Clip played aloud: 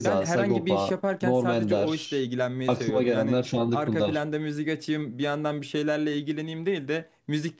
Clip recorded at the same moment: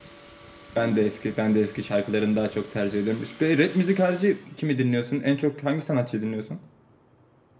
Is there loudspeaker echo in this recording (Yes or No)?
No